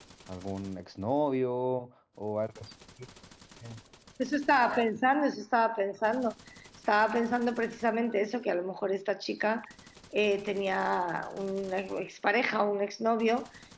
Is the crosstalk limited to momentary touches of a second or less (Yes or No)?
Yes